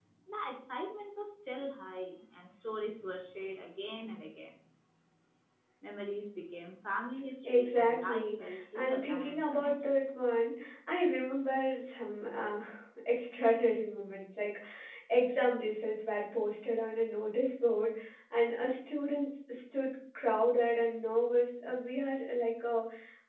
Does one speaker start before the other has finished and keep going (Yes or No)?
Yes